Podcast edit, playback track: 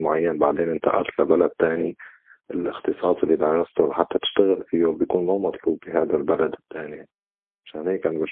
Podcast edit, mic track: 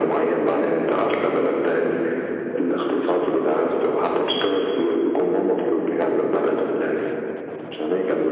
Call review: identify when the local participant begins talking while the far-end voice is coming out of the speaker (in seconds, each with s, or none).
none